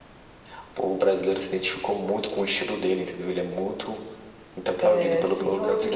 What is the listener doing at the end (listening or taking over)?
taking over